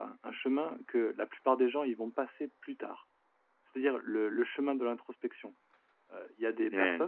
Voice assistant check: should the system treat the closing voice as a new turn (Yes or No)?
No